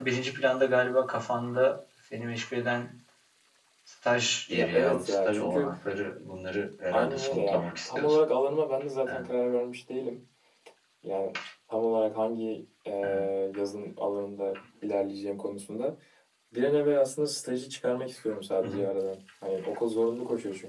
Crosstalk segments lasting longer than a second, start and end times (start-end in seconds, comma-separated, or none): 4.5-5.7, 6.9-8.2